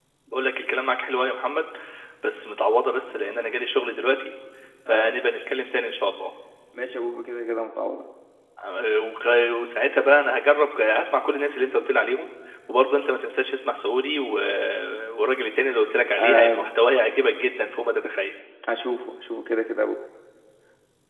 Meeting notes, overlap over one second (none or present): none